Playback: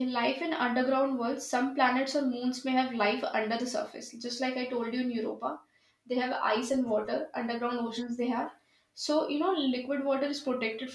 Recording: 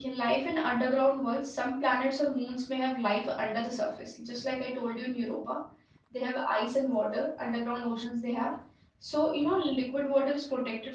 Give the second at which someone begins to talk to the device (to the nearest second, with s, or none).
none